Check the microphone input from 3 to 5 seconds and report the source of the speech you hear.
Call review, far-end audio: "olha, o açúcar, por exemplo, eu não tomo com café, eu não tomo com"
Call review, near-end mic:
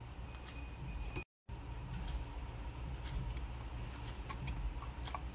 neither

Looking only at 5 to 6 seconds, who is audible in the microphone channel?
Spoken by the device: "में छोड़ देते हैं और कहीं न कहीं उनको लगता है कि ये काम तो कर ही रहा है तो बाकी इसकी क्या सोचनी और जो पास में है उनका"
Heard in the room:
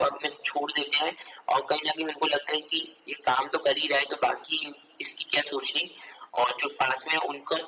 echo only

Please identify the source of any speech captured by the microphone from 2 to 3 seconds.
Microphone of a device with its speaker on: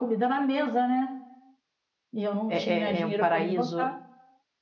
both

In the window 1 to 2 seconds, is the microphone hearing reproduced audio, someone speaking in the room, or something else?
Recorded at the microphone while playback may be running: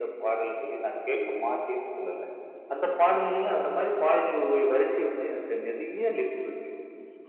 both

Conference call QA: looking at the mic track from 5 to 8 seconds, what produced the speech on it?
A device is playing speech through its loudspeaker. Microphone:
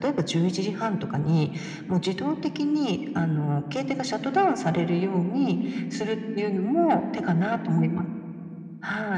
echo only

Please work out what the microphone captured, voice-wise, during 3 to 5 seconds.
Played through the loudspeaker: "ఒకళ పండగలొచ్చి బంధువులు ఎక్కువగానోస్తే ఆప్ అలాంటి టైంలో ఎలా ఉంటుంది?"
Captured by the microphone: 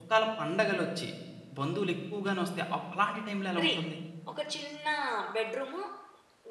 both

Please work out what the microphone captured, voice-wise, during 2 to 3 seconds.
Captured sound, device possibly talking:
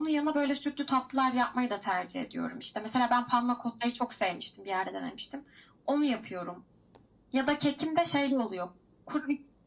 echo only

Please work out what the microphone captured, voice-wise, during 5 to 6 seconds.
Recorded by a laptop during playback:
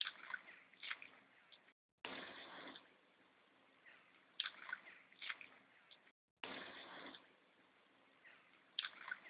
neither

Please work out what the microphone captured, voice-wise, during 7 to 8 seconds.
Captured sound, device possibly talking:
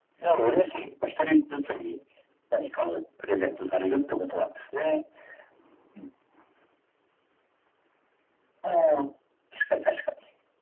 neither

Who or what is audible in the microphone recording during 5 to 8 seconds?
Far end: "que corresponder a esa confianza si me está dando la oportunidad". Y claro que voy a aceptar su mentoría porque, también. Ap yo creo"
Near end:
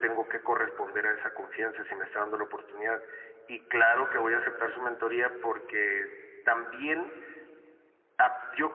echo only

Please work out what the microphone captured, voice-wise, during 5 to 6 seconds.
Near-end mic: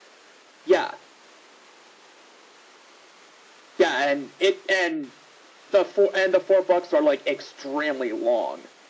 echo only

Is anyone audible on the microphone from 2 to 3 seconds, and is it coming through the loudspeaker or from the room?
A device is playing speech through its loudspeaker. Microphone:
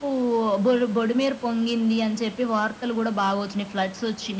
echo only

